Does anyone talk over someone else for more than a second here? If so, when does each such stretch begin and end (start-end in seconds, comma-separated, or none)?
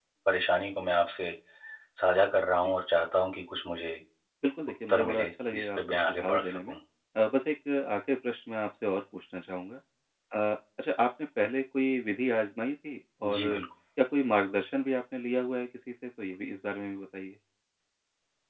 4.9-6.7